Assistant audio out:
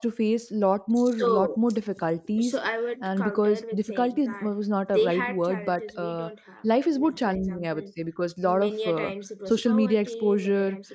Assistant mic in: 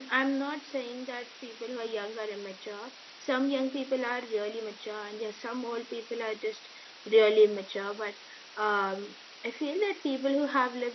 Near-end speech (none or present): present